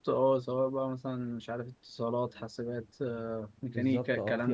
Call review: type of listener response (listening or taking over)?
taking over